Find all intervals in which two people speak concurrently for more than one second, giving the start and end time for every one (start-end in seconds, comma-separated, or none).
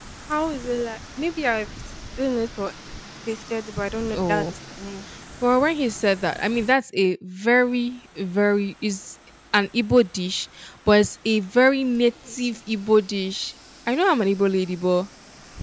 none